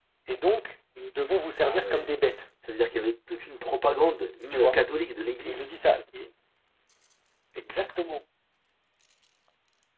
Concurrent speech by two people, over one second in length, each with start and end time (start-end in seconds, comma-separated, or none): none